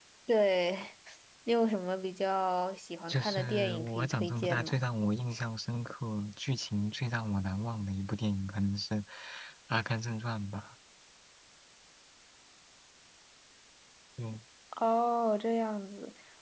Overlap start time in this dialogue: 3.1 s

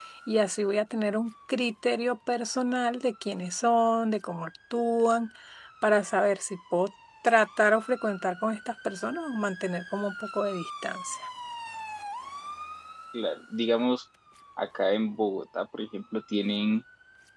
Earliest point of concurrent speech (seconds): none

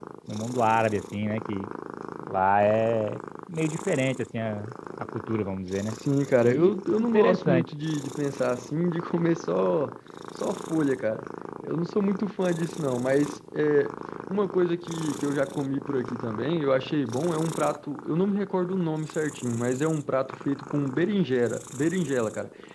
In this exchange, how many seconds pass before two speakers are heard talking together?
6.4 s

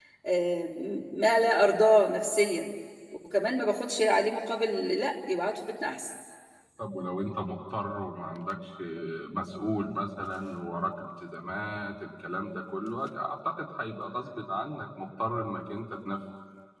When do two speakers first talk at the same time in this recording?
none

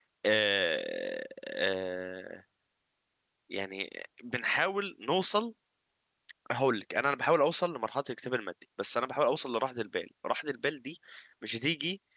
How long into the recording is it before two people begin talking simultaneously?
none

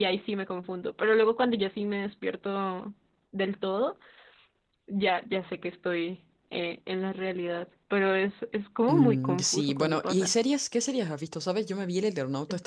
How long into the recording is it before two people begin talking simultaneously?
8.9 s

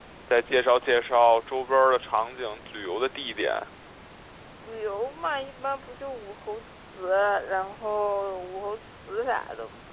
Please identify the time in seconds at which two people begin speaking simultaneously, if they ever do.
none

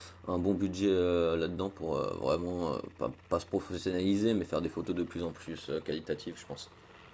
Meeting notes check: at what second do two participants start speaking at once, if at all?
none

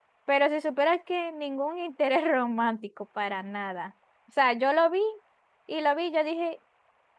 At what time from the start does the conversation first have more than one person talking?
none

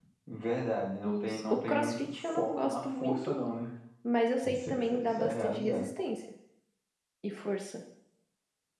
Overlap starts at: 1.0 s

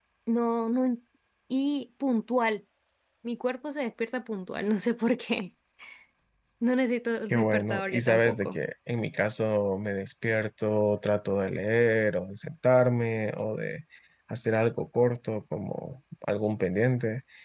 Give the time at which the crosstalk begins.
7.3 s

